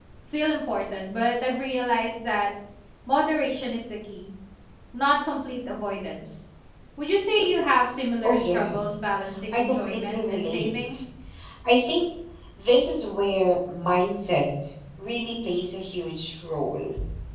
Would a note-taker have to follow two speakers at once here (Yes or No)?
Yes